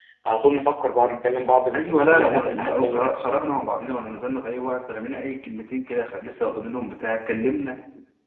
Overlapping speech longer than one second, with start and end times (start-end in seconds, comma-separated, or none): 1.7-3.1